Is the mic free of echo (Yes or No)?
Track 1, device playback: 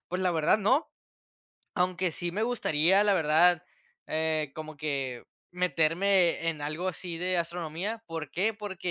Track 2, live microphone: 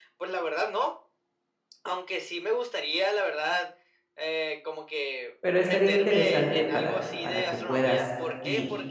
No